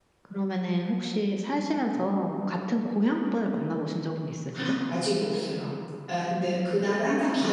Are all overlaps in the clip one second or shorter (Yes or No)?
Yes